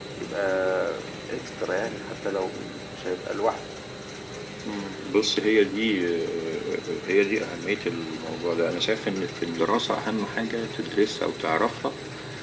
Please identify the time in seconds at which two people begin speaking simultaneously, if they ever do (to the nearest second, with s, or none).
none